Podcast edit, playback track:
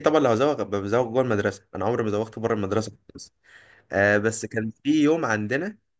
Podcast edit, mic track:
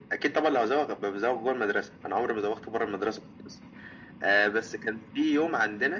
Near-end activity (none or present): none